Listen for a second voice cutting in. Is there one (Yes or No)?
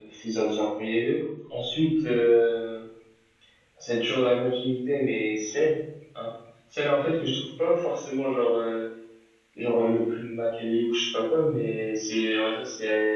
No